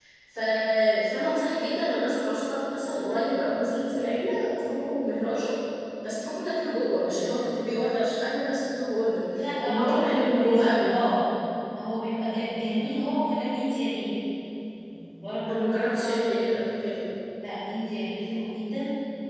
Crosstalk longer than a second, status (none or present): present